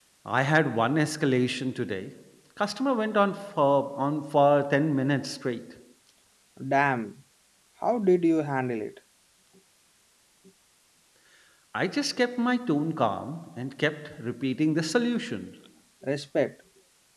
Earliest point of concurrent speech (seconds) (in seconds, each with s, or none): none